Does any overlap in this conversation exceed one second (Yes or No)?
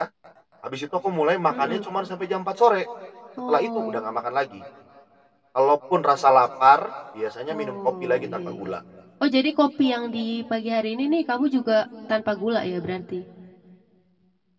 Yes